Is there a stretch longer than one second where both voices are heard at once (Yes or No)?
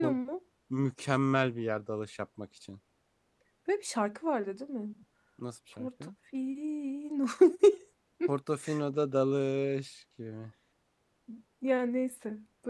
No